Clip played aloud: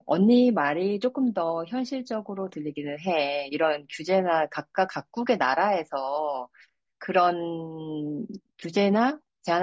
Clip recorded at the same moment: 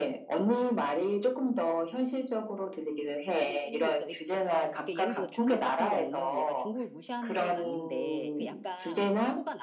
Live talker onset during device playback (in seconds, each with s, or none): 3.4 s